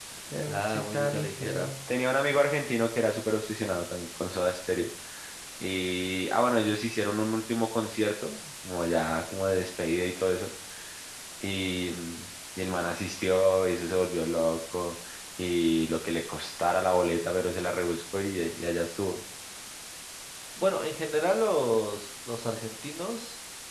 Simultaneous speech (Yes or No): Yes